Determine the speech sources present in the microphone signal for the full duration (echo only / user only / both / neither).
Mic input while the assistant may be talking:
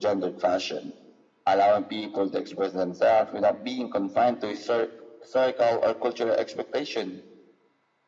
echo only